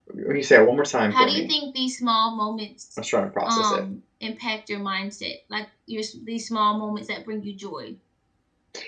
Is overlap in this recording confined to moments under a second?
Yes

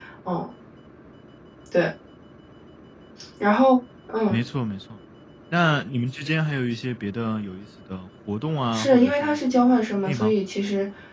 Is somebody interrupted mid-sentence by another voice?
Yes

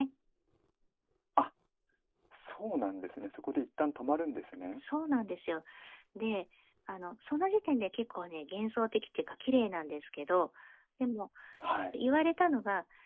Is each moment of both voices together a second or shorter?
Yes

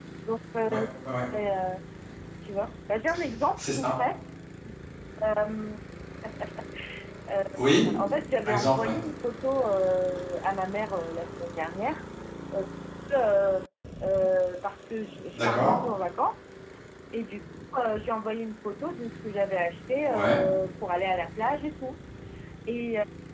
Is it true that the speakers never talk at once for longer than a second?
Yes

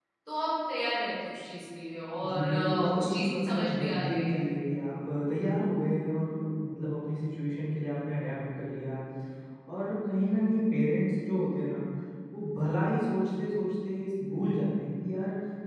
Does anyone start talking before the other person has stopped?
Yes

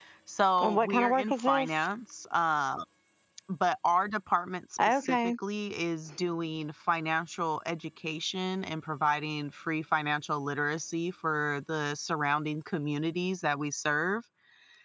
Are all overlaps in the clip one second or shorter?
No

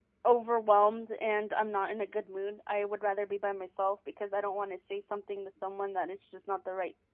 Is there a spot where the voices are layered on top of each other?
No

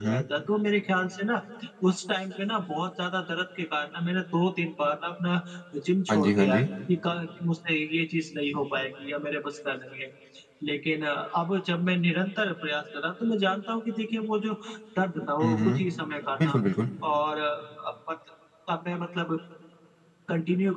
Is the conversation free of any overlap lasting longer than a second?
Yes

